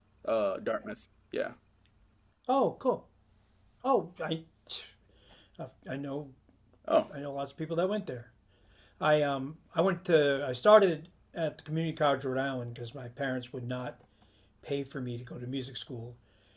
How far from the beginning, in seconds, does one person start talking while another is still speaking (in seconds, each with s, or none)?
none